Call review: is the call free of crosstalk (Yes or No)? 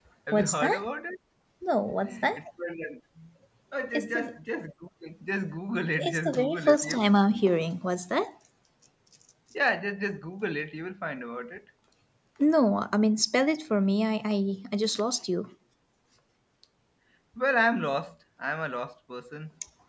No